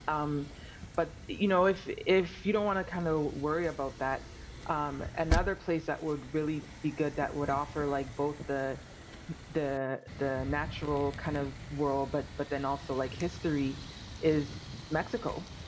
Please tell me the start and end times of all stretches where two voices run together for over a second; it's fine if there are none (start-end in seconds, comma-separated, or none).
none